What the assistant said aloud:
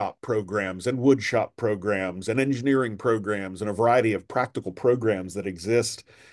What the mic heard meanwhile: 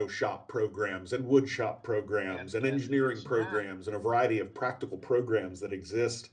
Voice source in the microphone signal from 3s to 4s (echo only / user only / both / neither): both